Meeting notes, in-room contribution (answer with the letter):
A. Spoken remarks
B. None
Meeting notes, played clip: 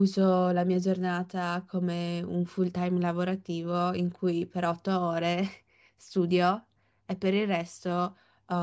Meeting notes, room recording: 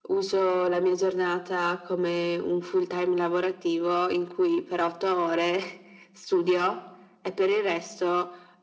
B